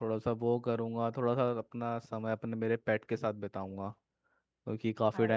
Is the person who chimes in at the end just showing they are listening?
Yes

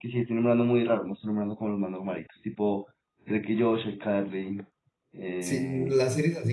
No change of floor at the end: No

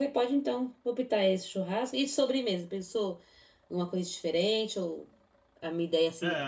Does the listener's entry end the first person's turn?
Yes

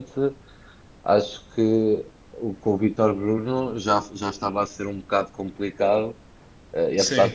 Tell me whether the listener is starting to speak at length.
No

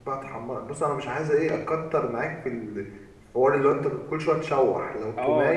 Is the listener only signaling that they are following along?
No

